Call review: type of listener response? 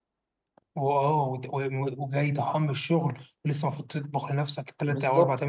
taking over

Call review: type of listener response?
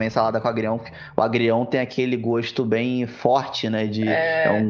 listening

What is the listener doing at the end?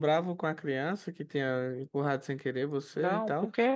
taking over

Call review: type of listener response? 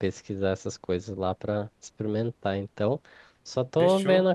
listening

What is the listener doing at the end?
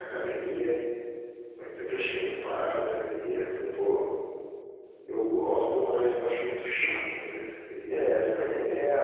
taking over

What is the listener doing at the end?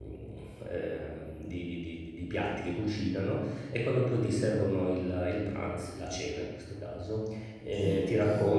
listening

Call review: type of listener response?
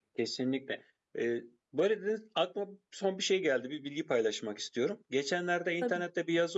listening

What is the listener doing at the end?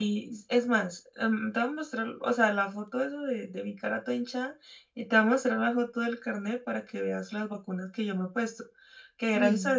listening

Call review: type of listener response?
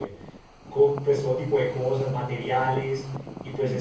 listening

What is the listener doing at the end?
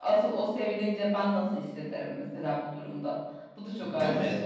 taking over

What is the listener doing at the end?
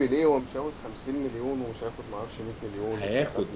taking over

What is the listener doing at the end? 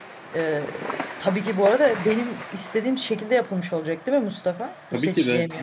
taking over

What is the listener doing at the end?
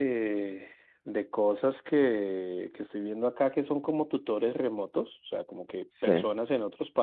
listening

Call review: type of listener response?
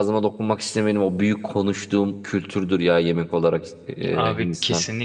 taking over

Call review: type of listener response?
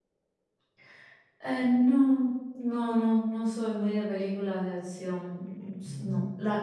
listening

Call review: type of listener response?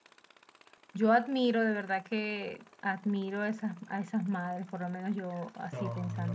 taking over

